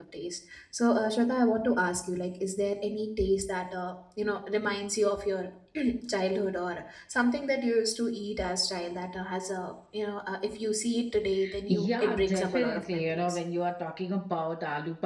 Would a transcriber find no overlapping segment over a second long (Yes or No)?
No